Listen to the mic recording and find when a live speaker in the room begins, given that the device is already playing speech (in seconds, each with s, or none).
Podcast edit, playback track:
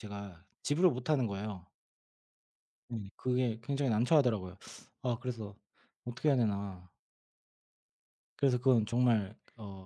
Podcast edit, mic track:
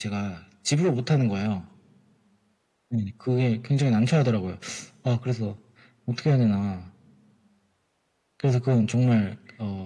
none